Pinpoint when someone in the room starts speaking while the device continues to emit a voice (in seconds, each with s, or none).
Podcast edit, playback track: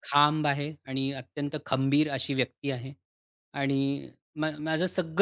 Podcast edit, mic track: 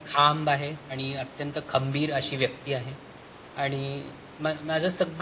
none